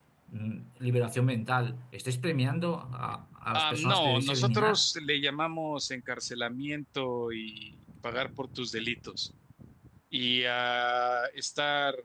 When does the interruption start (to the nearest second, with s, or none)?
4 s